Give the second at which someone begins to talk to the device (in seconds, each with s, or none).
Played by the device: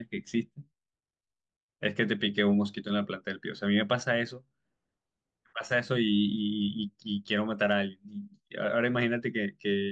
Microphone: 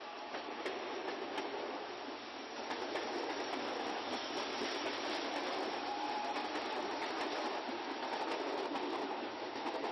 none